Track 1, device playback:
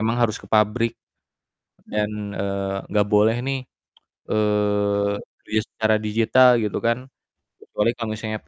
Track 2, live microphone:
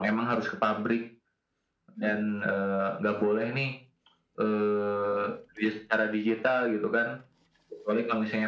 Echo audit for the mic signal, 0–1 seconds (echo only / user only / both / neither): echo only